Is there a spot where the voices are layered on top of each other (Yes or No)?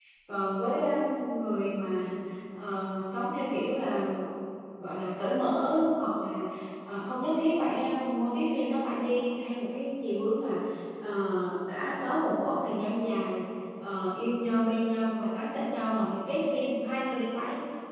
No